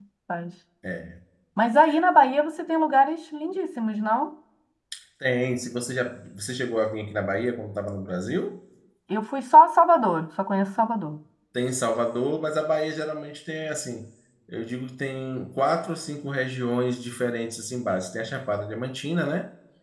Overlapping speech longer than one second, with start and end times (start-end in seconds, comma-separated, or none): none